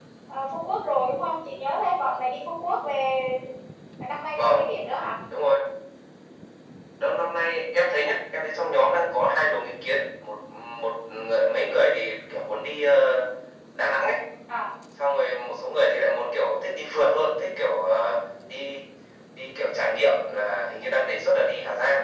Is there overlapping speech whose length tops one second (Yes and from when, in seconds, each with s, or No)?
No